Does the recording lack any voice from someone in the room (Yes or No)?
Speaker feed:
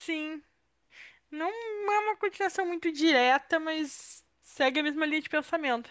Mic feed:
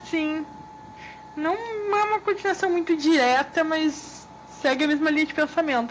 Yes